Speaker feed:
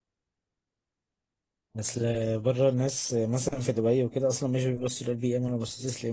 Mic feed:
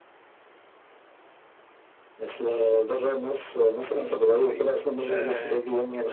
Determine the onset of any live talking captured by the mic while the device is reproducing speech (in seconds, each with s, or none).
4.4 s